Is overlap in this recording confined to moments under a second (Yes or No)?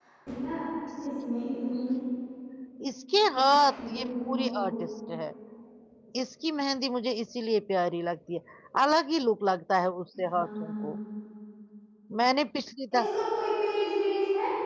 No